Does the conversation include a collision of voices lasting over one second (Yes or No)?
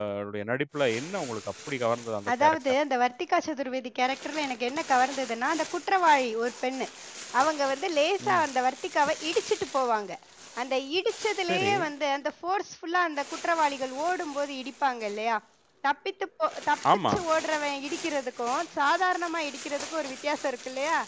No